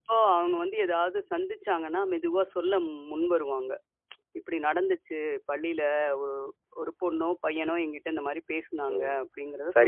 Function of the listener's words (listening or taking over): taking over